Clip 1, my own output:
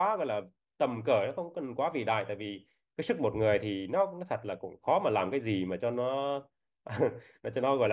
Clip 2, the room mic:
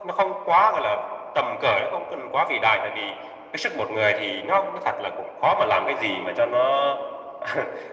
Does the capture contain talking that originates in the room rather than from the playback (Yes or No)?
No